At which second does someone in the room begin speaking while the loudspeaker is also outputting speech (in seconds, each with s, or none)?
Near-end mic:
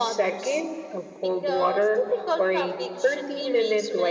none